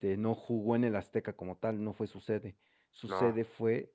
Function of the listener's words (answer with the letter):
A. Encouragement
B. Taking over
A